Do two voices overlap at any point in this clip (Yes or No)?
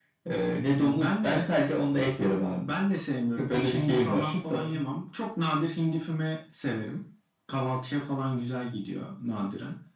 Yes